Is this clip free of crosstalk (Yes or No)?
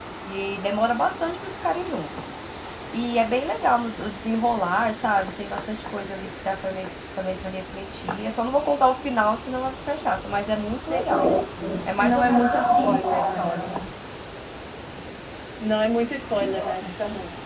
No